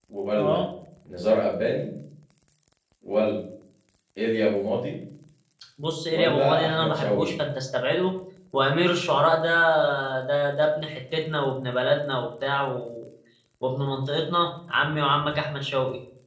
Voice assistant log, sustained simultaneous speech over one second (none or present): present